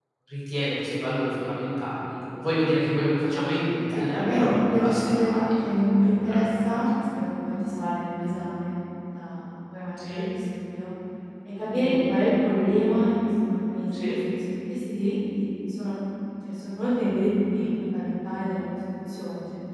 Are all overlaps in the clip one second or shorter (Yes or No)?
No